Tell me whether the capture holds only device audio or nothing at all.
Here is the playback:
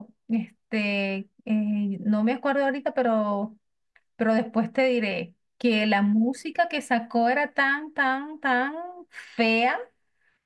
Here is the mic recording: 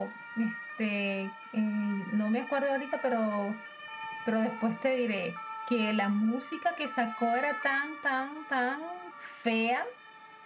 Yes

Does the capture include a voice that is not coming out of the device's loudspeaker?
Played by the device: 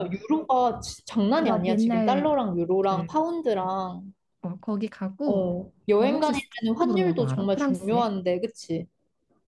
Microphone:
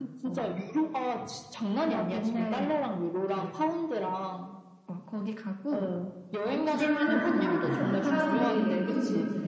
Yes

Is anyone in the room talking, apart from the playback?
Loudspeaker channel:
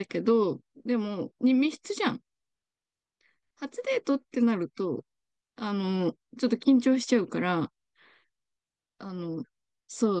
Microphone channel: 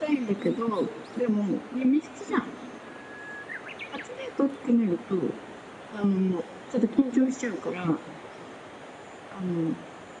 No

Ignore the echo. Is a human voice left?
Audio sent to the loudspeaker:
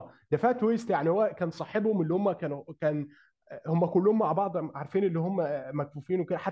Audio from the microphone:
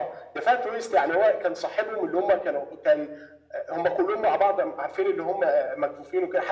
No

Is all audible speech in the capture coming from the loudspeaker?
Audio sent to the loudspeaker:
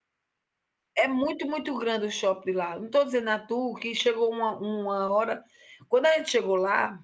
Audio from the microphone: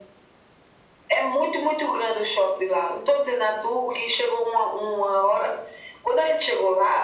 Yes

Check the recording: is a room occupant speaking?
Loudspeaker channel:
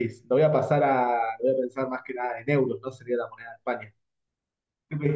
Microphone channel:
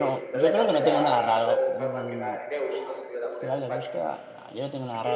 Yes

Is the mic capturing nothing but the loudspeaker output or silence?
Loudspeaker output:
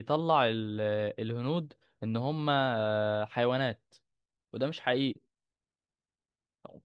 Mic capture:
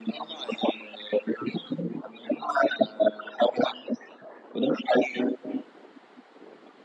Yes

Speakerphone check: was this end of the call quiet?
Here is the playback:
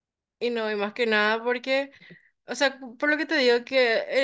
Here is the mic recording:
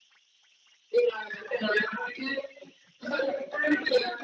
No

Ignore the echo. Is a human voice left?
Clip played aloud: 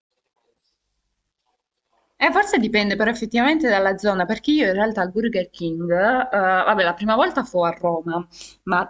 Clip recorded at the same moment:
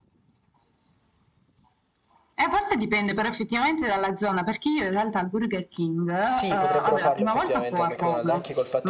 Yes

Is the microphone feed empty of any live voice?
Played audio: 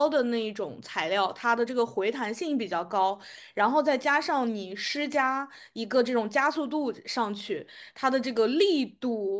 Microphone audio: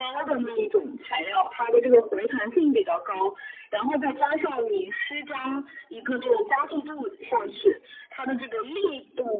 Yes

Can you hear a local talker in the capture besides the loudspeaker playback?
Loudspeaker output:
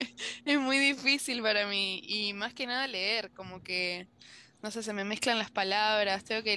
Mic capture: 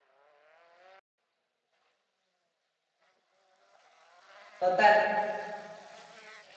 Yes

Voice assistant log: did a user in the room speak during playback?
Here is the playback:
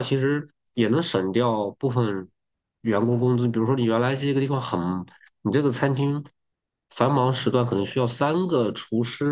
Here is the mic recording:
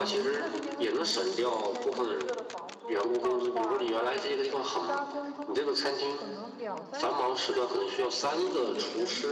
Yes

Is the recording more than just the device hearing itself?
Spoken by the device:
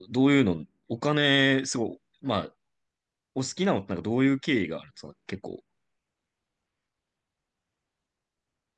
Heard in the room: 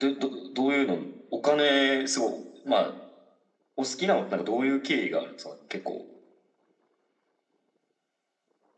No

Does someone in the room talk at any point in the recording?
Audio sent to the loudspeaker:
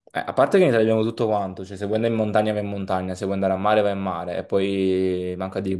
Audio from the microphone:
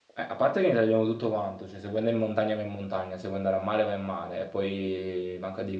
No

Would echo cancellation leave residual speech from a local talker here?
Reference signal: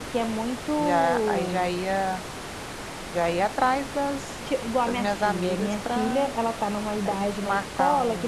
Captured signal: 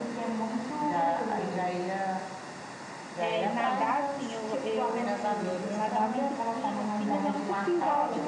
Yes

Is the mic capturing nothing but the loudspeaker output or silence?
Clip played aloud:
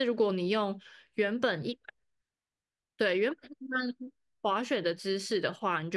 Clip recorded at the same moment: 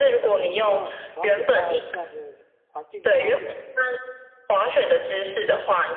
No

